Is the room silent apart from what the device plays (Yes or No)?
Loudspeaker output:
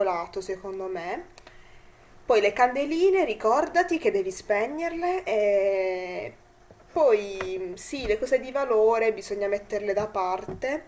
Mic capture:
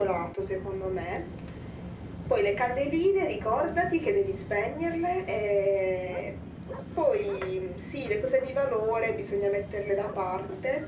Yes